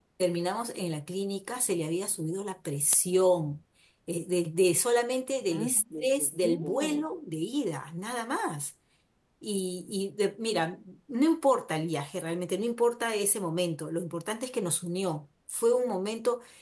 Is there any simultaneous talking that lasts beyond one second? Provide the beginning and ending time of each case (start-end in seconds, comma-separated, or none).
5.5-7.0